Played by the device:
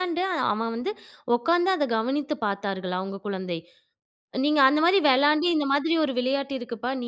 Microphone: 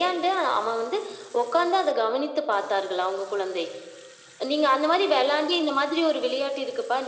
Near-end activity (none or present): none